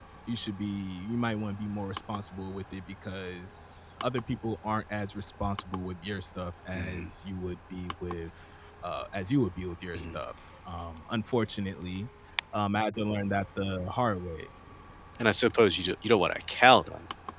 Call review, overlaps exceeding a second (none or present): none